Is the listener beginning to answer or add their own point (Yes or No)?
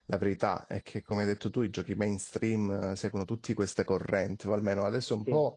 No